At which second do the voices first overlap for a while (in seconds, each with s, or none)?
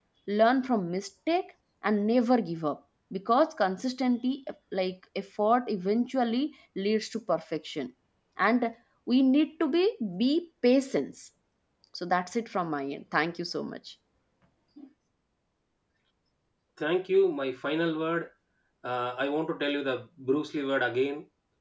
none